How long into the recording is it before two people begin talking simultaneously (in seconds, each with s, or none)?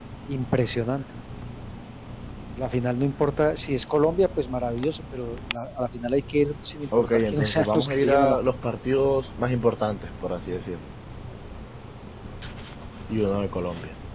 6.9 s